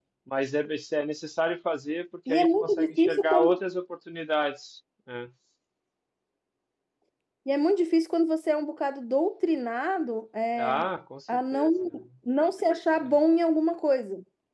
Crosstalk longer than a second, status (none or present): present